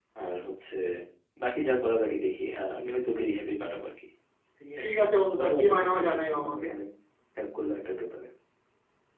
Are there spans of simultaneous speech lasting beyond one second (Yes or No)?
Yes